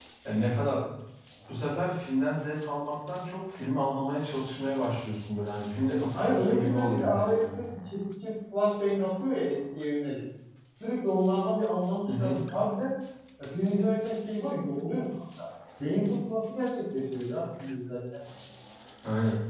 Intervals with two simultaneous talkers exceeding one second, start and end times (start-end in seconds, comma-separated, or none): 5.9-7.6